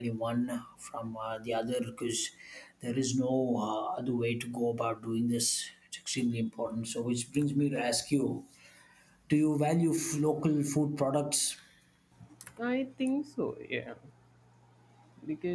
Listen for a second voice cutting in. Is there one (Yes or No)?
No